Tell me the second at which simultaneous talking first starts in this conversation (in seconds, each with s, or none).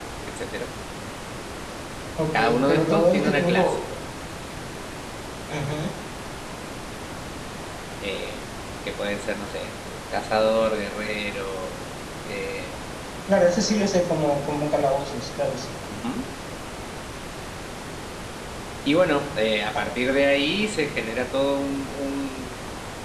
2.3 s